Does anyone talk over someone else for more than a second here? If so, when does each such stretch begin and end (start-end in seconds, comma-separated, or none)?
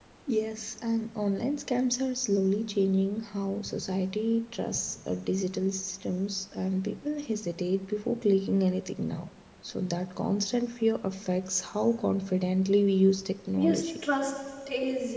none